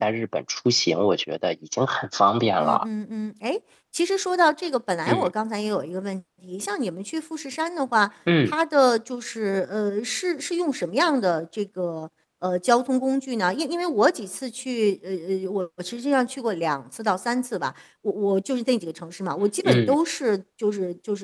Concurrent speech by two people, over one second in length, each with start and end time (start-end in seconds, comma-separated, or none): none